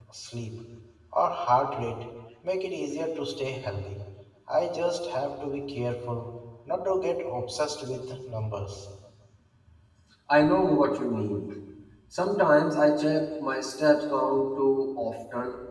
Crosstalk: none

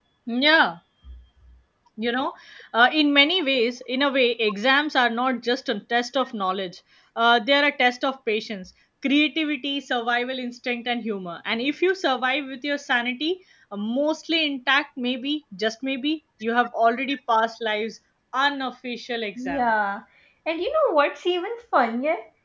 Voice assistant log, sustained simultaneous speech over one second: none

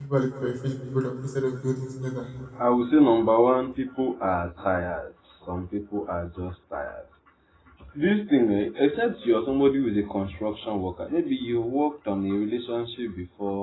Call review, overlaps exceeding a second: none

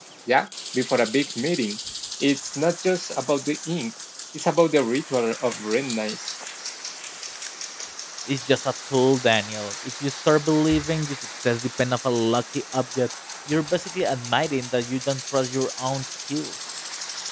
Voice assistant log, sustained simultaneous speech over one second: none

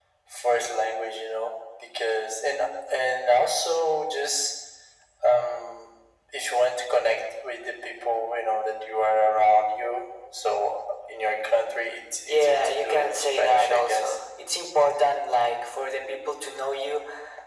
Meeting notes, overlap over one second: present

